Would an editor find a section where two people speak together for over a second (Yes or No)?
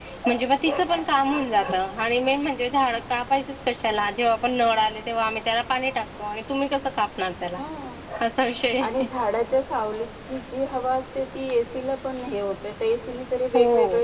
No